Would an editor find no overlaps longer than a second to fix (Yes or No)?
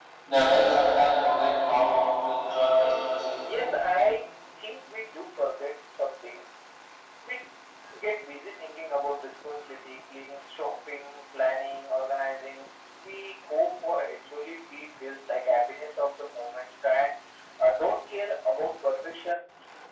Yes